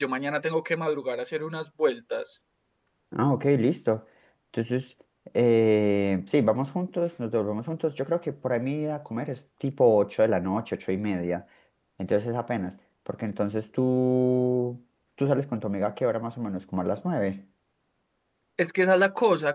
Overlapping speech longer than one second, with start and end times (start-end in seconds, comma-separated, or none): none